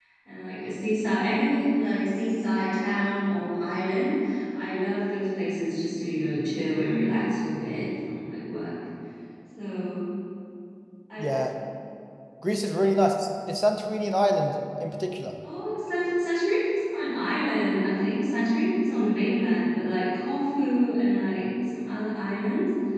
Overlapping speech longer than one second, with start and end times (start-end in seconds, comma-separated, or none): none